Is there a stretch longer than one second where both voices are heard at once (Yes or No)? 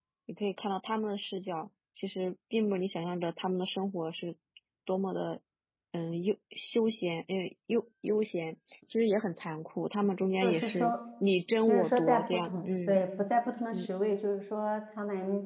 Yes